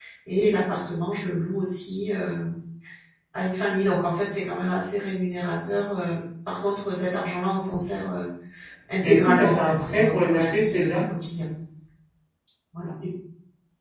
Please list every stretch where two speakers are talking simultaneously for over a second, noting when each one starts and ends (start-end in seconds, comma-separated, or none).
9.0-11.0